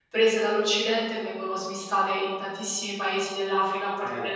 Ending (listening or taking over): taking over